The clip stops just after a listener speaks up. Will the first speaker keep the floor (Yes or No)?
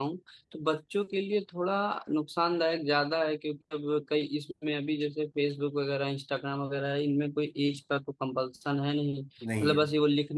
Yes